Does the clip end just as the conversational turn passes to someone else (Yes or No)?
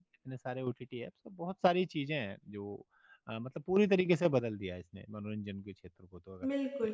Yes